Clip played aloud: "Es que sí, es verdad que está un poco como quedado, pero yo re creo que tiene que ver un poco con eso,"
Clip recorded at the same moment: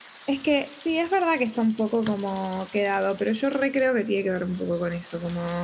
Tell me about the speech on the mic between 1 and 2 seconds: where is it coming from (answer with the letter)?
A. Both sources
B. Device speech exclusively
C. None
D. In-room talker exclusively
B